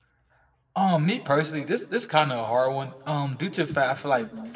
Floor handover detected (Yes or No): No